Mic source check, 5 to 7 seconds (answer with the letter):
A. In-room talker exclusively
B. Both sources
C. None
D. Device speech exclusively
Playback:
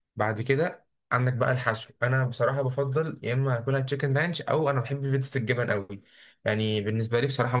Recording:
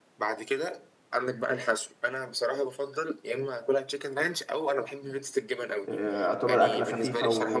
B